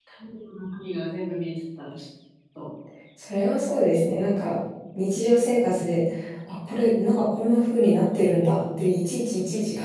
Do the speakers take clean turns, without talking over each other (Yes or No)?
Yes